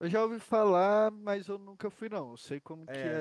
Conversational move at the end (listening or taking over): taking over